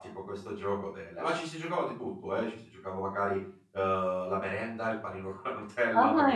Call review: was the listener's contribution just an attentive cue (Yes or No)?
No